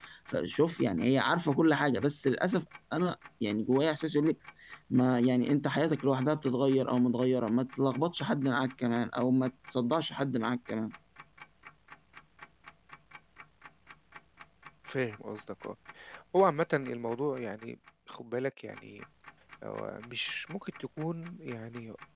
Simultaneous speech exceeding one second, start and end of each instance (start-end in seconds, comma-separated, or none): none